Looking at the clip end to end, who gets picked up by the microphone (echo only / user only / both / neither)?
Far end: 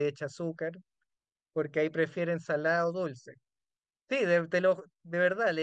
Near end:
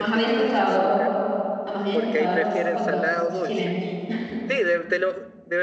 both